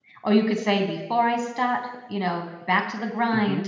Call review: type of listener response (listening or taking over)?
listening